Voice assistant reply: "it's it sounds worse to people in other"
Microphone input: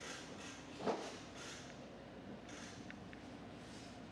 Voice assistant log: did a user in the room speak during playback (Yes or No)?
No